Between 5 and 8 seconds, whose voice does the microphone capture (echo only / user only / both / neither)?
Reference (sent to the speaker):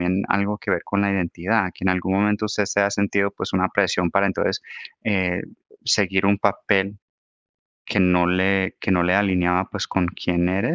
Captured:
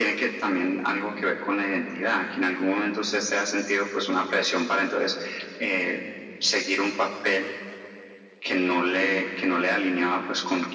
echo only